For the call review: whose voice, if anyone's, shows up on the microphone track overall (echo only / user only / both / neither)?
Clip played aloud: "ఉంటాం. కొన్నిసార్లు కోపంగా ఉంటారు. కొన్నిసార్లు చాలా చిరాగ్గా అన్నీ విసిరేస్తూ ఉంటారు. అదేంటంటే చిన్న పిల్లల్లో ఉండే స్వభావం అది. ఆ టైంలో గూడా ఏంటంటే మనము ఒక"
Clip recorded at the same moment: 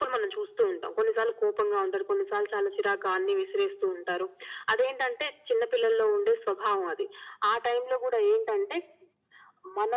echo only